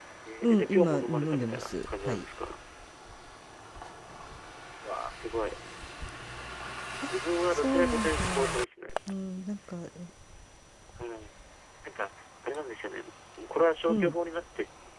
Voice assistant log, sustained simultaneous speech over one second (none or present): present